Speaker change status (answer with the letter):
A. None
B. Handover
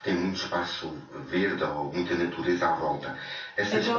A